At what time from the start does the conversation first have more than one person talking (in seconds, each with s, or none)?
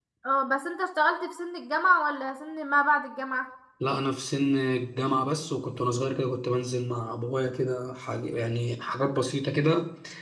none